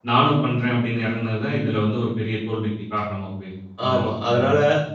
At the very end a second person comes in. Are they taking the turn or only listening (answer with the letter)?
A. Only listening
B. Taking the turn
B